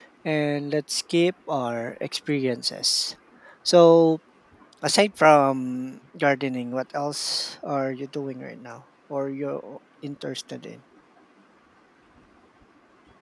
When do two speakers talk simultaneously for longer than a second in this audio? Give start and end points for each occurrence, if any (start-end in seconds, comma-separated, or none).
none